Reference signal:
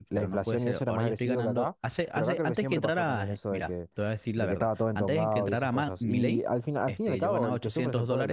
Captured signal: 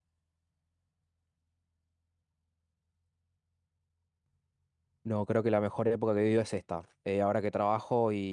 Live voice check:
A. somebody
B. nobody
A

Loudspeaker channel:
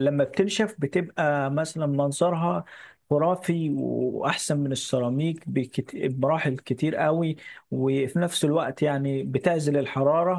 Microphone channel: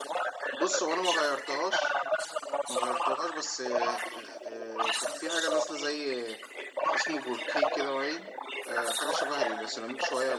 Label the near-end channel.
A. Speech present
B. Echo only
A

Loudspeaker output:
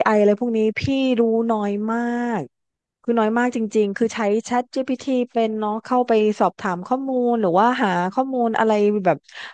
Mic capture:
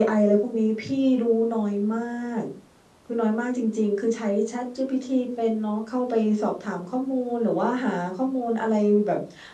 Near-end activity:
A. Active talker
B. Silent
B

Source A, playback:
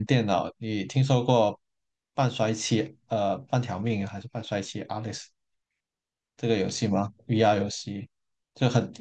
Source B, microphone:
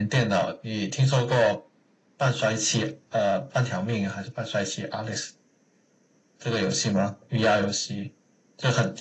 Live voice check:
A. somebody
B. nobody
B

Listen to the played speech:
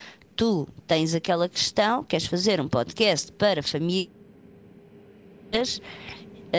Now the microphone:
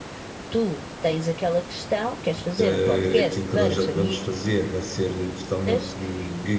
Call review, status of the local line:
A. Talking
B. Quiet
A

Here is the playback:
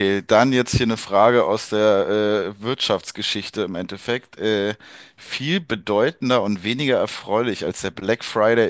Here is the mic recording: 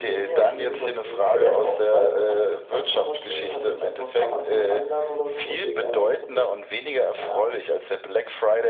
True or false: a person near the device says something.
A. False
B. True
B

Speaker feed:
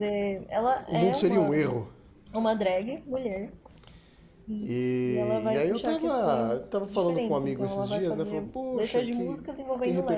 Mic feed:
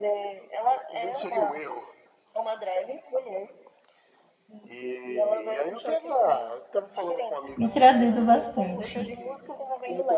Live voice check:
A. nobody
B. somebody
B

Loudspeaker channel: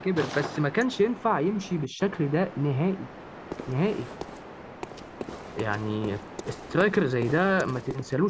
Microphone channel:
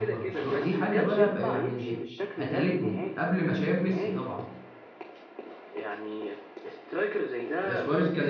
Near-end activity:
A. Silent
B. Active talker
B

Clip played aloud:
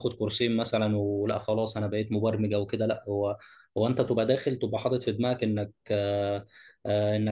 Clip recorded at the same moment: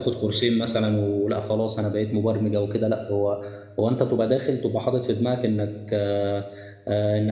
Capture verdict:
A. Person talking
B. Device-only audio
B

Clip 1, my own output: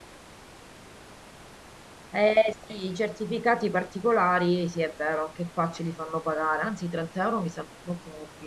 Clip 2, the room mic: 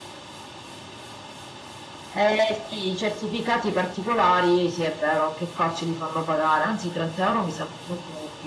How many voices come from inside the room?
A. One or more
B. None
B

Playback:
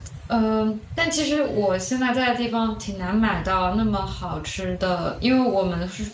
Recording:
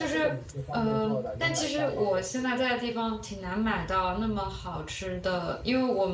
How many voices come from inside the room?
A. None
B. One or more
B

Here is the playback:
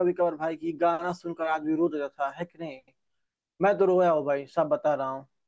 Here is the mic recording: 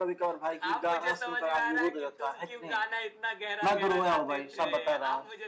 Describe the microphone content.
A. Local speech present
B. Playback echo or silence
A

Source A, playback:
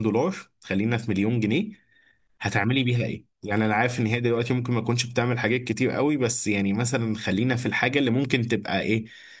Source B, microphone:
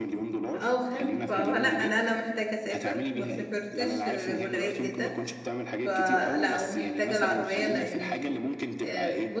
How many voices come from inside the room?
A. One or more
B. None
A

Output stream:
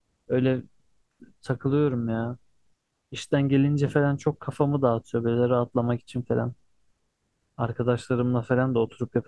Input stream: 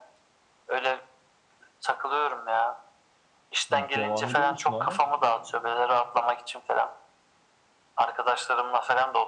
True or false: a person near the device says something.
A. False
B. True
B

